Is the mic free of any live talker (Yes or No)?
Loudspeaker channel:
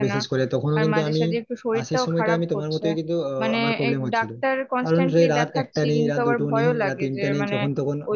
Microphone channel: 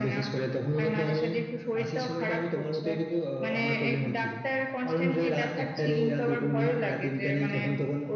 Yes